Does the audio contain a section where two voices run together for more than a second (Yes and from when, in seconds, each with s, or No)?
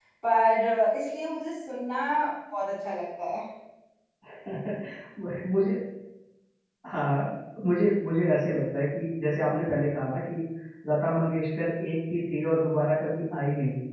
No